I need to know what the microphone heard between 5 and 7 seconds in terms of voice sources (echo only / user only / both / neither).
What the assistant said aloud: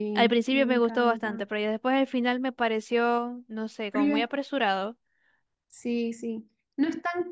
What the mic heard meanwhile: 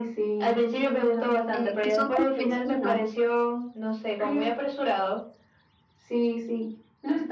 echo only